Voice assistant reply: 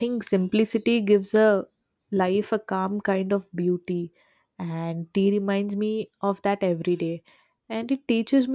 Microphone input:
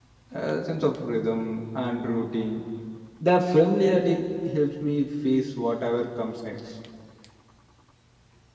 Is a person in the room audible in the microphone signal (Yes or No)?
Yes